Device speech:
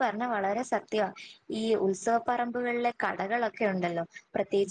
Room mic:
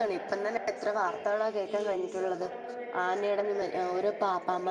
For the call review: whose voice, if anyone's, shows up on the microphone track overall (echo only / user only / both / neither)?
both